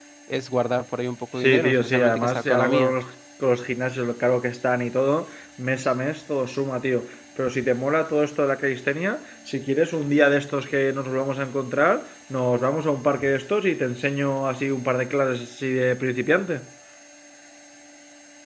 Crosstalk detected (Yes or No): Yes